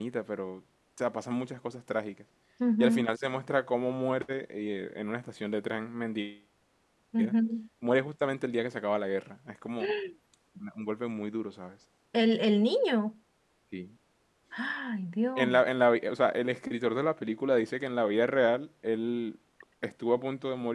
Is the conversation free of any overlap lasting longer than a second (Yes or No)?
Yes